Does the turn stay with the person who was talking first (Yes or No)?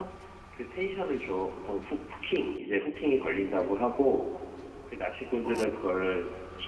Yes